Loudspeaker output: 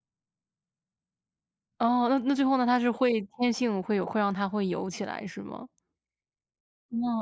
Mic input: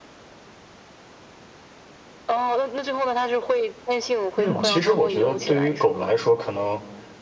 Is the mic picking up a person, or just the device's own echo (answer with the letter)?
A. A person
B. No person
A